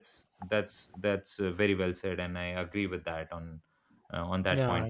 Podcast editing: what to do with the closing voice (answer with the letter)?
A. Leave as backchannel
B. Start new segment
B